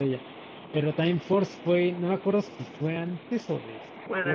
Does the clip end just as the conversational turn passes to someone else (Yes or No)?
Yes